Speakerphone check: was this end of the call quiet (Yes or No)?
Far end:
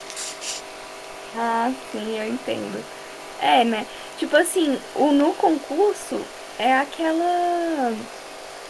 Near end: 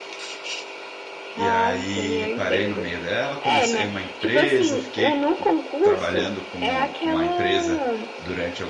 No